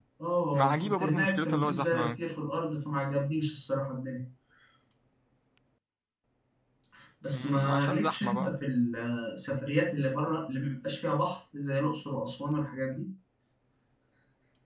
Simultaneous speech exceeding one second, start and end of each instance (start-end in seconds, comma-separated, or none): 0.5-2.2, 7.3-8.6